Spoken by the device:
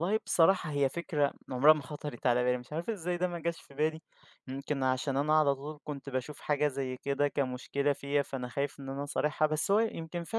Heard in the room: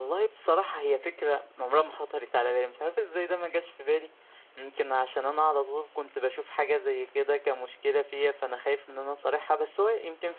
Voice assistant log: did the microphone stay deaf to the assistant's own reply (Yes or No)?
No